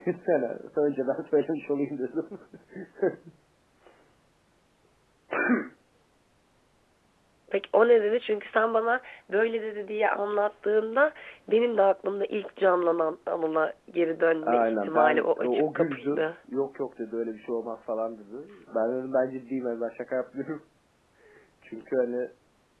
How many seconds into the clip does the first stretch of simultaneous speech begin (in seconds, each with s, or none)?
14.4 s